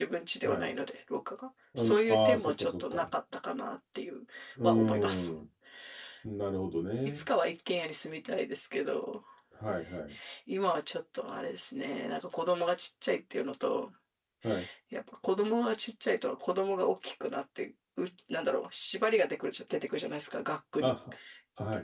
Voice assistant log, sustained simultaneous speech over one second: present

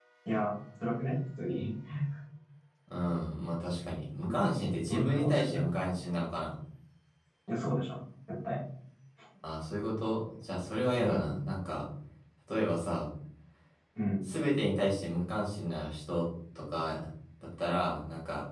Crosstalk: present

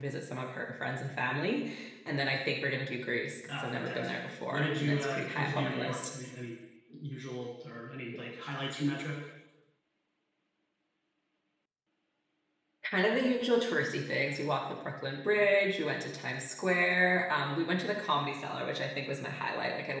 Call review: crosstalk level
present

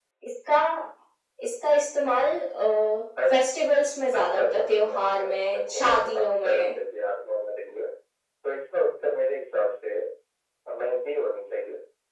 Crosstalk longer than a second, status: present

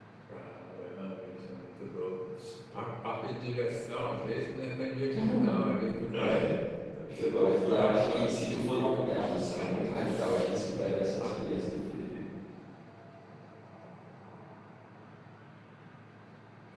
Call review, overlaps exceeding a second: present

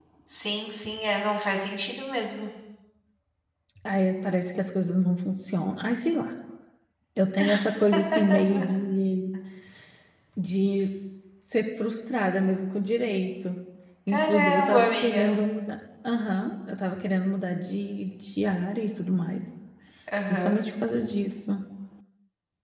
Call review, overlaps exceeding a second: present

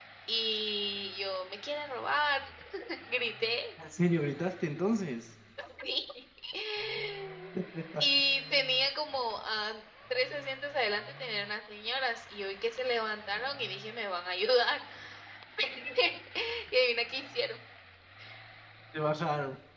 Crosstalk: none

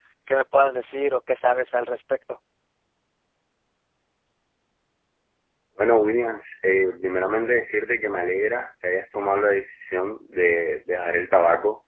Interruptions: none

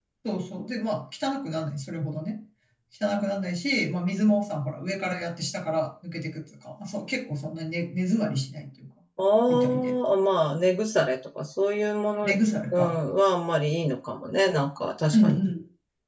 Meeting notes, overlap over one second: none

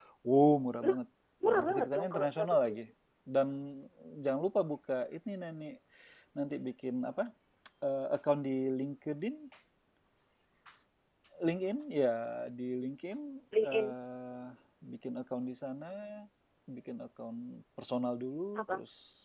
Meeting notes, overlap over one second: present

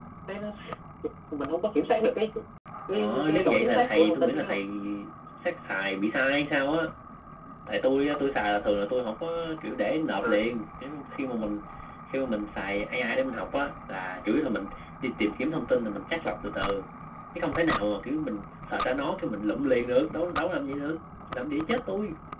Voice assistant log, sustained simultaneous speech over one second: present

